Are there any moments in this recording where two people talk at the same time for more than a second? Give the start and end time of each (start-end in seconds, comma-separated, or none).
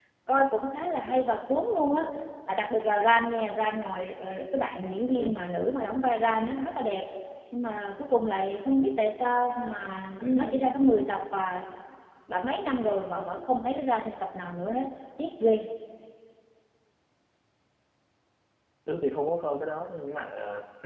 none